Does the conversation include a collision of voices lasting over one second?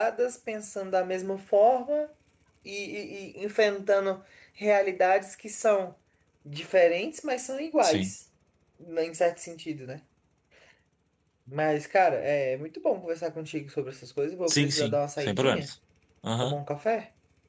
Yes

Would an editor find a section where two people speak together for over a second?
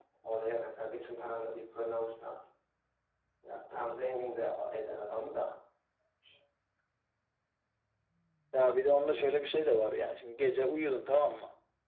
No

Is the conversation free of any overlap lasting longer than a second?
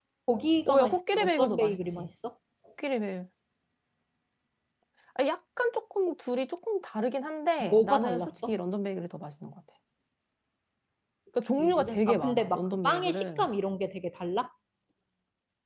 No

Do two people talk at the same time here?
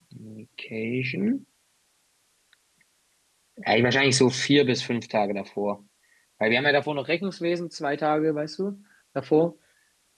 No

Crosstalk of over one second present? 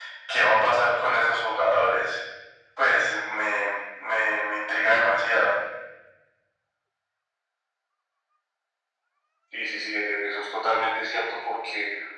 No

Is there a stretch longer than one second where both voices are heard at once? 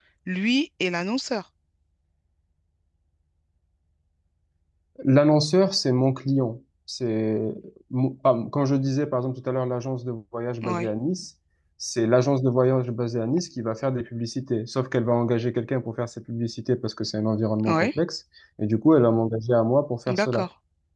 No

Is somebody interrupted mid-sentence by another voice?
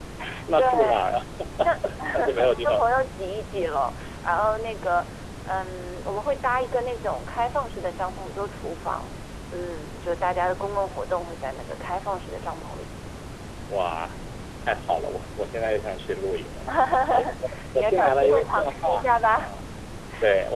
Yes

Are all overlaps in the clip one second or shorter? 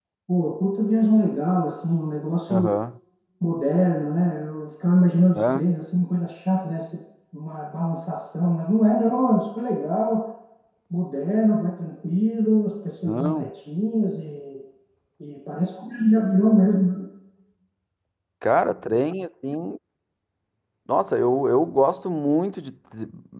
Yes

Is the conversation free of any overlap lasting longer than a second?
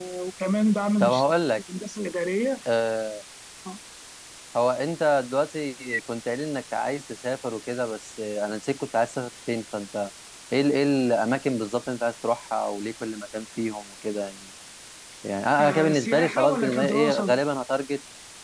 No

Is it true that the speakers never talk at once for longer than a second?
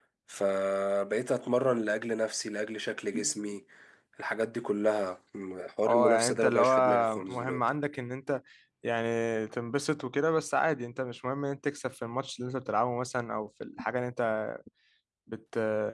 No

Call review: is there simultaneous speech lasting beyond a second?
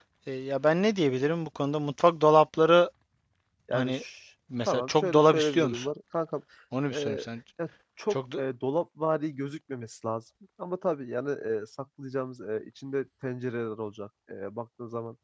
Yes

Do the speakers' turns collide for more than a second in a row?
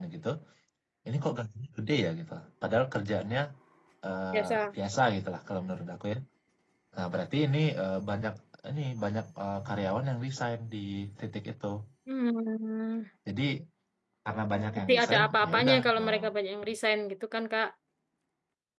Yes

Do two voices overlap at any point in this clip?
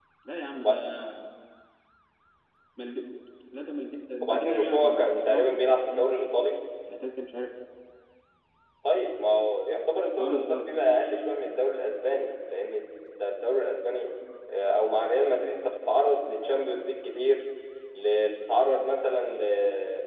Yes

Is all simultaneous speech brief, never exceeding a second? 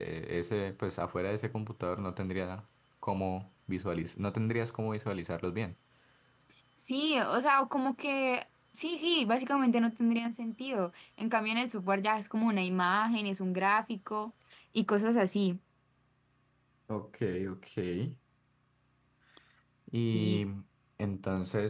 Yes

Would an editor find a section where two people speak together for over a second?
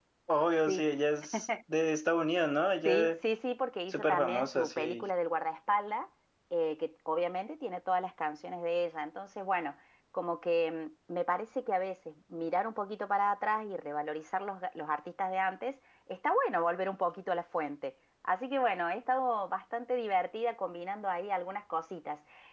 Yes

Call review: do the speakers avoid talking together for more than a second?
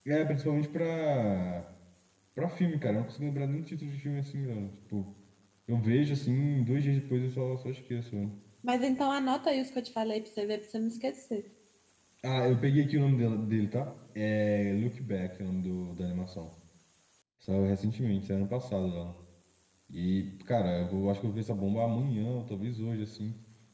Yes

